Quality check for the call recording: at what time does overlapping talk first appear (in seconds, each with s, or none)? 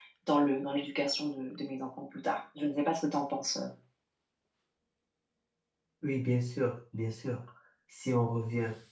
none